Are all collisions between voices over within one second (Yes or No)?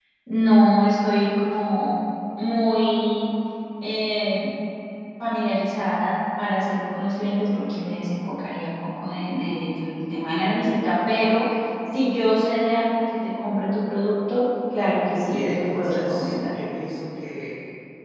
No